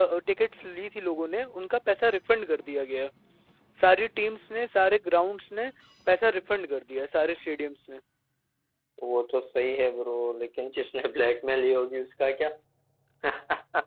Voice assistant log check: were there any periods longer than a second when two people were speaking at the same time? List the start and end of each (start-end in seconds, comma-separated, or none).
none